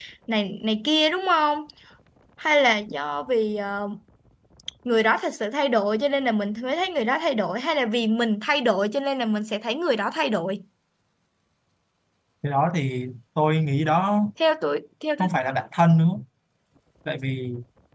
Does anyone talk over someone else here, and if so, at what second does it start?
none

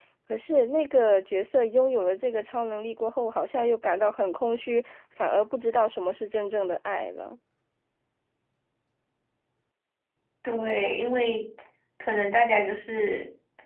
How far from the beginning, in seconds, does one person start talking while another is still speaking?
none

